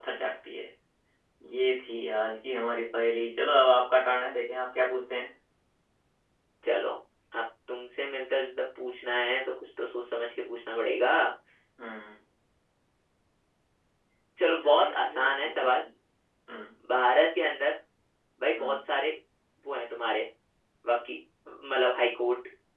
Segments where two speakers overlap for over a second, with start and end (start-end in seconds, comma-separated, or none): 14.4-15.7